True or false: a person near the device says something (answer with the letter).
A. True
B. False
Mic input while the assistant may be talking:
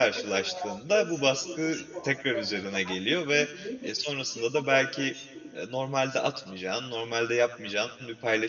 A